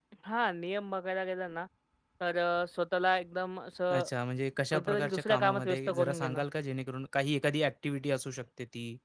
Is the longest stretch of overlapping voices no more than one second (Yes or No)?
No